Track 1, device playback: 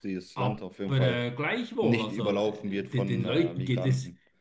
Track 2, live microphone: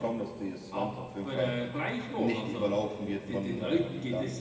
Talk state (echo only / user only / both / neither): echo only